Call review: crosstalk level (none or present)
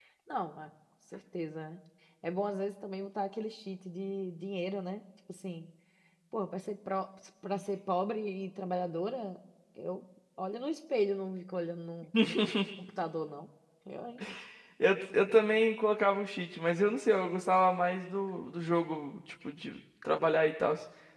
none